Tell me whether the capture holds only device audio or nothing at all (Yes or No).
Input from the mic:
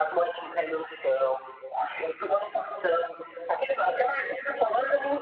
Yes